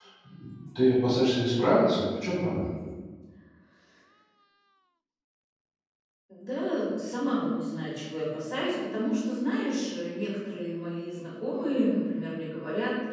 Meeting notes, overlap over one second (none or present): none